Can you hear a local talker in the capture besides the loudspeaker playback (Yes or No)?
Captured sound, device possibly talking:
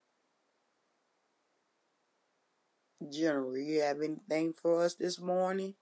Yes